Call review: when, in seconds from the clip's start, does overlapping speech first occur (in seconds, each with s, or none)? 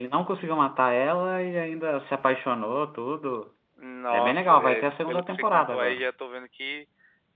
4.1 s